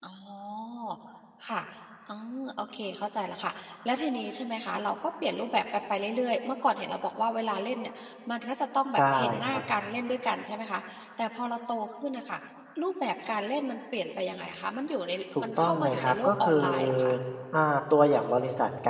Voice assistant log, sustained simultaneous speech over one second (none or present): present